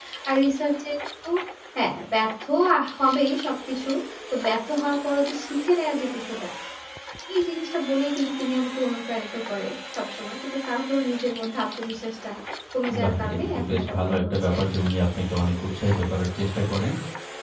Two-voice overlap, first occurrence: 13.0 s

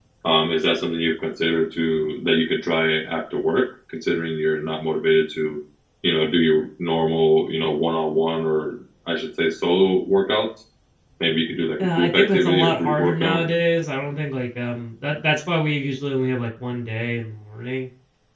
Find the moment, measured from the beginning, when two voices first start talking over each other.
11.8 s

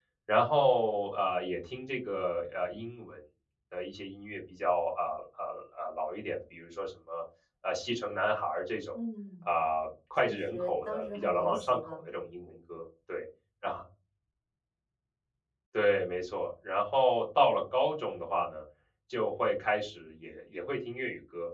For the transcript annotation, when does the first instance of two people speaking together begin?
10.2 s

